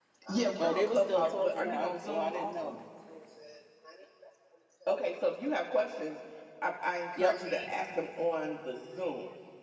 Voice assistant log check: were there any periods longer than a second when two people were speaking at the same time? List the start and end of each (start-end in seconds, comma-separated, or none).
0.6-2.8